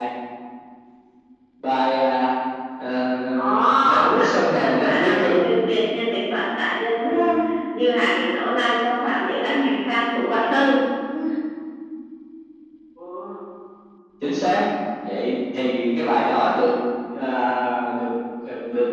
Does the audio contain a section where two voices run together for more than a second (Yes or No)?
Yes